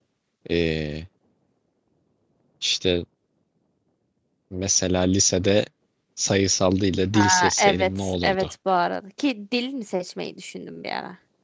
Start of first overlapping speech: 7.2 s

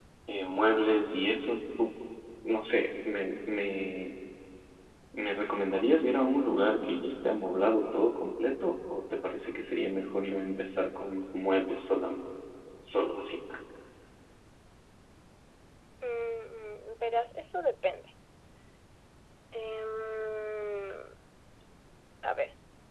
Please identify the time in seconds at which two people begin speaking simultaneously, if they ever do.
none

